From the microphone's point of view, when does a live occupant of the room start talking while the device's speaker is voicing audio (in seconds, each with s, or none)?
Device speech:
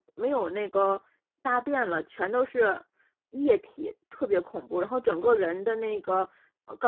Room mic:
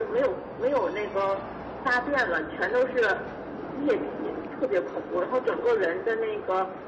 none